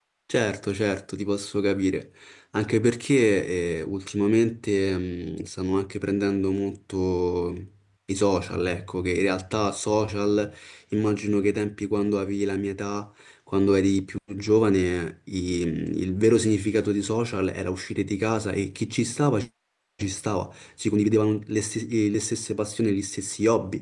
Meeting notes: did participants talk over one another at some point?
No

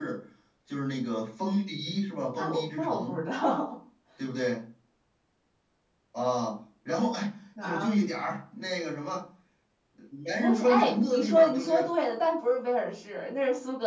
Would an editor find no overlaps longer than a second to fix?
No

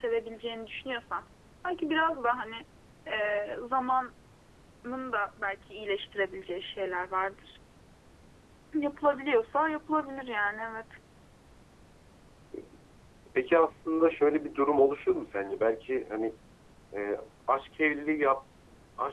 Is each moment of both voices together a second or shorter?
Yes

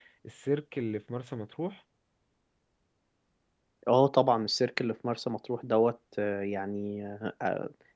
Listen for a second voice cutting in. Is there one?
No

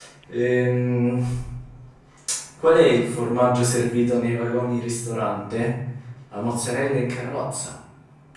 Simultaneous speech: No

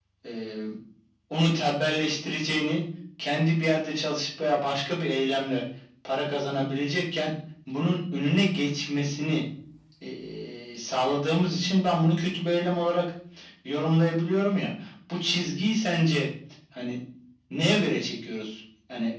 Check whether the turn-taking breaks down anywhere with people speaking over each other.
No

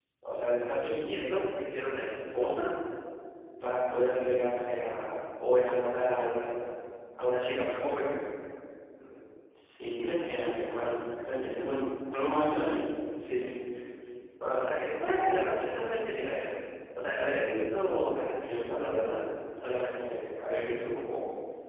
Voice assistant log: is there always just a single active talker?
Yes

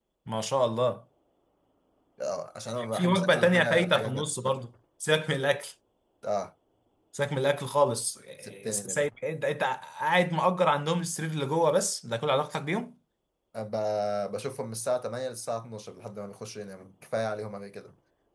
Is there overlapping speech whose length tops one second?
Yes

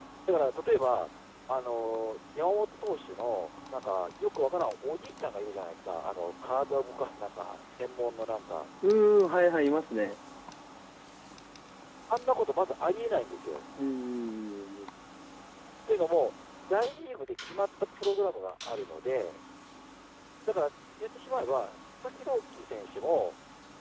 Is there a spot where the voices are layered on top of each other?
No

